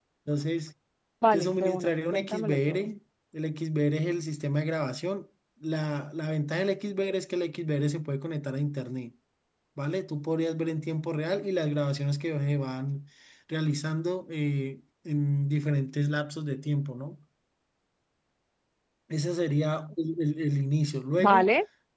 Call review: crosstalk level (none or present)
present